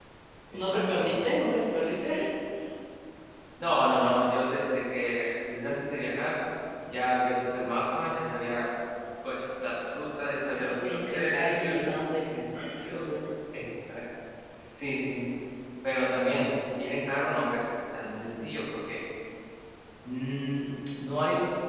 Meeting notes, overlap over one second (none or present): present